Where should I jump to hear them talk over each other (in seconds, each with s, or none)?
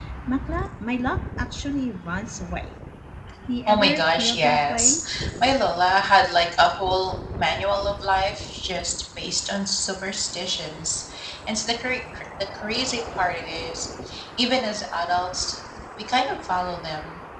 3.7 s